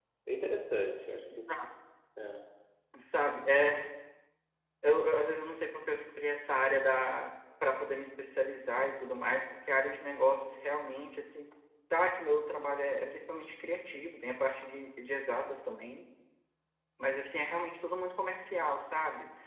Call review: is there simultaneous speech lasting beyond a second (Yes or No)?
No